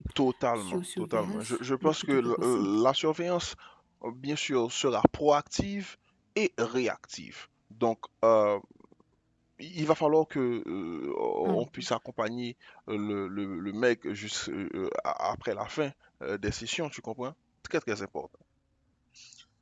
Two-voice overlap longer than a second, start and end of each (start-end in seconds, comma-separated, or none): 0.6-2.8